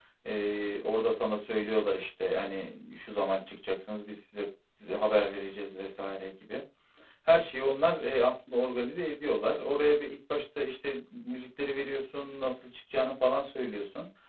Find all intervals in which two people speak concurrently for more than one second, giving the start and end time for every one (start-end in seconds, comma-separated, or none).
none